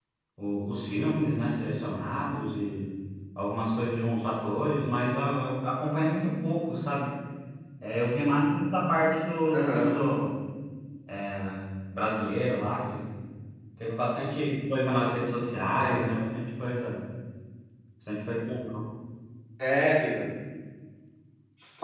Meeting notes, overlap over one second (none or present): none